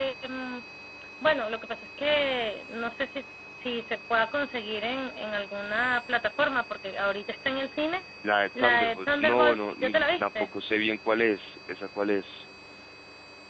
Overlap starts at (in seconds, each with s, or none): 8.6 s